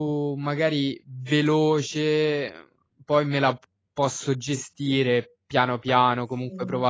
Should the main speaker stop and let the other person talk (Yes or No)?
No